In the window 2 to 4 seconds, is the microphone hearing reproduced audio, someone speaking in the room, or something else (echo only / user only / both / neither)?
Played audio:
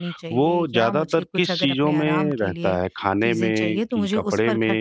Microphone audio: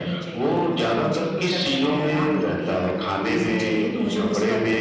echo only